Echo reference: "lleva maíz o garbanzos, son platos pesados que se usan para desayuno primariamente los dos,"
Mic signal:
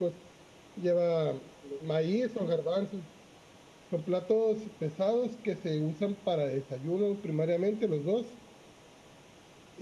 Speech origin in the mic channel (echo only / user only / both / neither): echo only